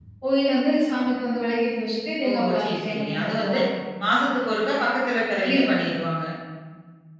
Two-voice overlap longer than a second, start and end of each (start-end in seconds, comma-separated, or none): 2.3-3.6